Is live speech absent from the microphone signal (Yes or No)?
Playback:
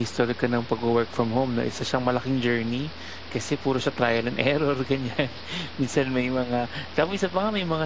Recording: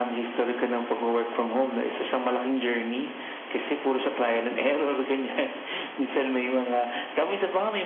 Yes